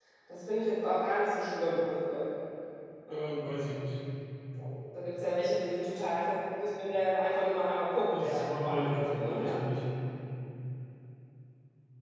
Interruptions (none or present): present